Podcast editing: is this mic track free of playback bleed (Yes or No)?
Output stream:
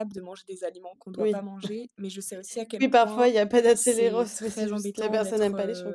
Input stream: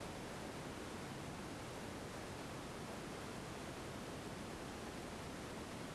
Yes